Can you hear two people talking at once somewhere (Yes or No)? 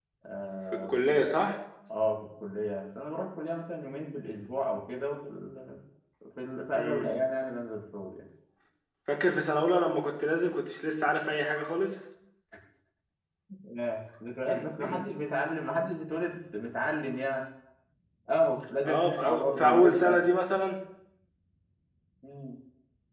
Yes